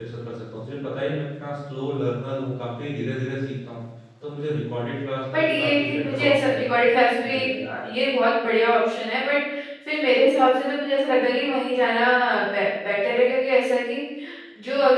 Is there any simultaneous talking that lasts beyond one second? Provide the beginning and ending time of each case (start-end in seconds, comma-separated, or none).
5.3-6.9